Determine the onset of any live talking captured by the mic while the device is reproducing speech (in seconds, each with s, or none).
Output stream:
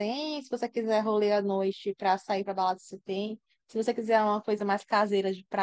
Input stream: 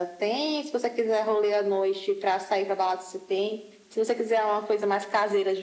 none